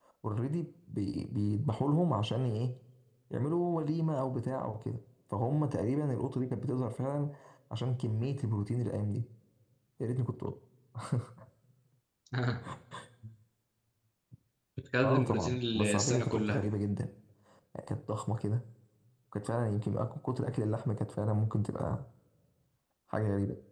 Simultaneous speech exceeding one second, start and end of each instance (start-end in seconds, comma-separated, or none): 15.0-16.6